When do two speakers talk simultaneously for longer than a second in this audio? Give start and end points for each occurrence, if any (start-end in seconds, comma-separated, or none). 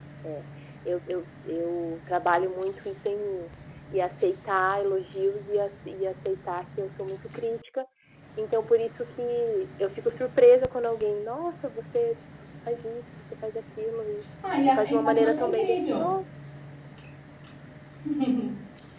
14.7-16.1